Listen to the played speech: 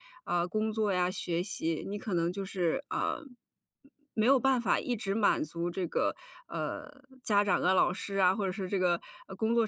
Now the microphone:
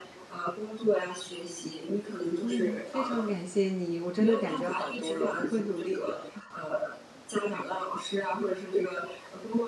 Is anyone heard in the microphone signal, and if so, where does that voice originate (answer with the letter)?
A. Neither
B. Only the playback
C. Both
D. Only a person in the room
C